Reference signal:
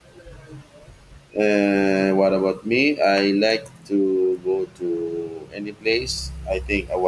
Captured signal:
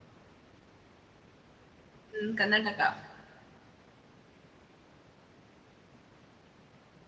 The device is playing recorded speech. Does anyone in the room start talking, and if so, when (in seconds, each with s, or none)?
2.2 s